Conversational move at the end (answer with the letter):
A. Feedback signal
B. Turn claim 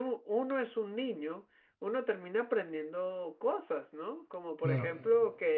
A